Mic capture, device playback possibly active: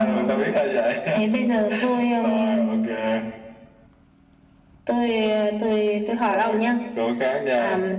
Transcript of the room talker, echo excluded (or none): none